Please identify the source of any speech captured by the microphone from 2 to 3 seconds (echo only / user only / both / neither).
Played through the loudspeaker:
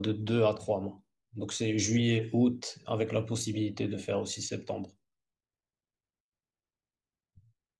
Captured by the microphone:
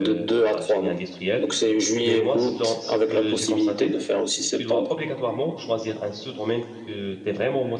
both